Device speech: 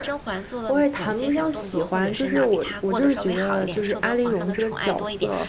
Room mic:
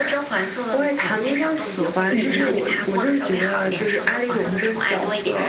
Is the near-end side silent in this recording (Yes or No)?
No